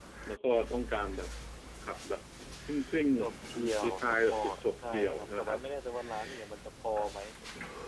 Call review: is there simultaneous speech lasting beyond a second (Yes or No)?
Yes